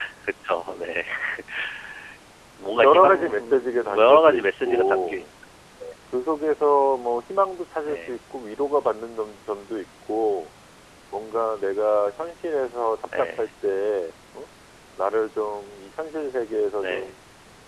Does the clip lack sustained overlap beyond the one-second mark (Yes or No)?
No